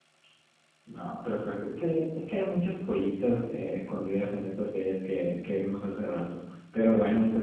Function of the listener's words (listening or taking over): listening